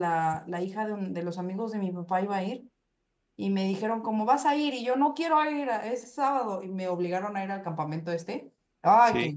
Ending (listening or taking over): listening